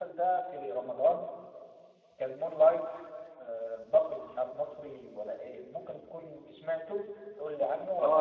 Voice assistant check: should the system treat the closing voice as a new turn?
Yes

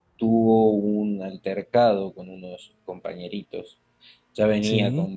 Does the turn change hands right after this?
No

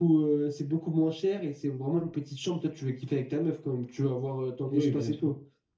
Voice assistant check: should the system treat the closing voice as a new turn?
Yes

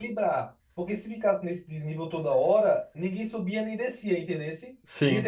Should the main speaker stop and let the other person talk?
No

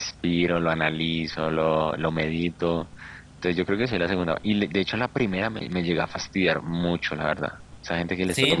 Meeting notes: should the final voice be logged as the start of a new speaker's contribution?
Yes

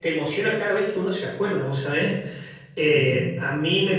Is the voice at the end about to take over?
No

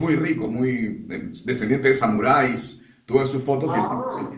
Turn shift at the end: No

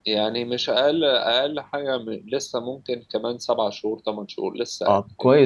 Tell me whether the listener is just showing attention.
No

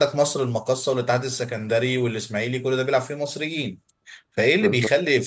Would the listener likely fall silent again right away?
Yes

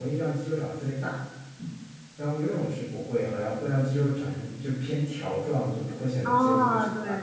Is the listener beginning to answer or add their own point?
Yes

